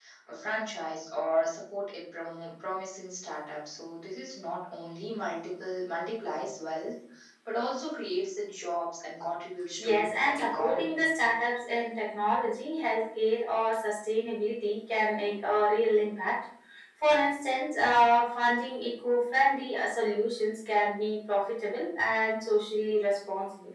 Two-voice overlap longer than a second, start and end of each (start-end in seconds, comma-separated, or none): 9.8-11.0